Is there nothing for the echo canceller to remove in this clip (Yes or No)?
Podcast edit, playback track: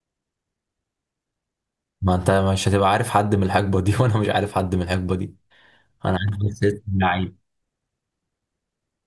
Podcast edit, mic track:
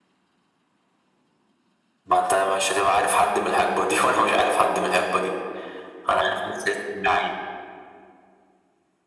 No